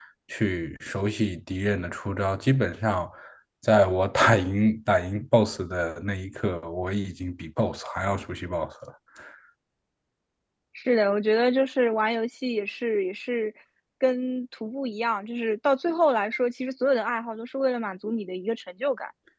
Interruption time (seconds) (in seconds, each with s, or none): none